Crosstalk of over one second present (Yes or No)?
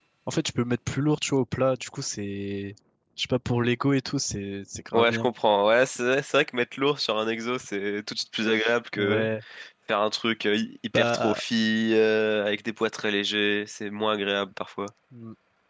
No